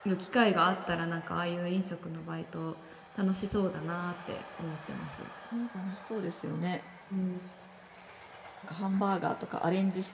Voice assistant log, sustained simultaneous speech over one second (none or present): none